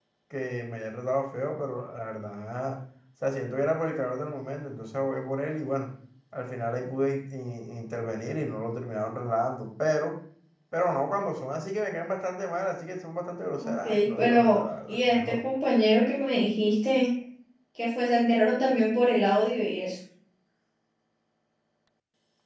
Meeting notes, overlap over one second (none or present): present